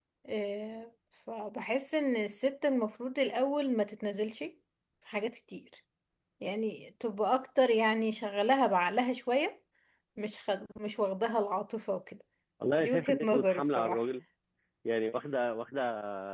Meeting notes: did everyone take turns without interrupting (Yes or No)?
No